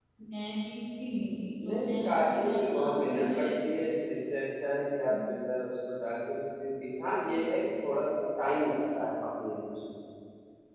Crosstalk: present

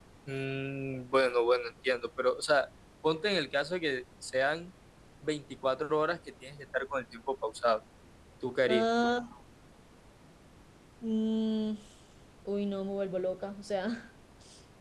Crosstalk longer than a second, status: none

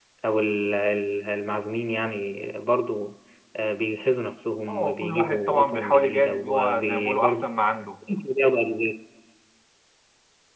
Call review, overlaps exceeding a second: present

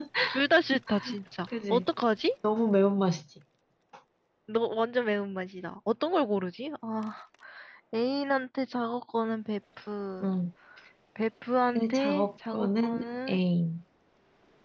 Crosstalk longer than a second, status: present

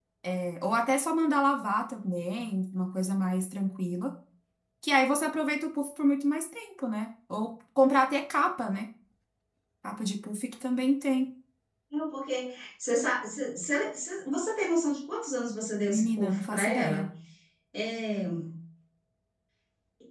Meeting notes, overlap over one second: present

